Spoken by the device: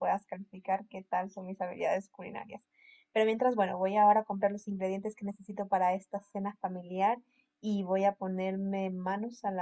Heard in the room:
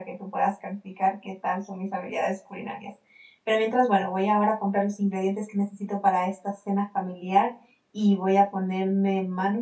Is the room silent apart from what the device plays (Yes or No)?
Yes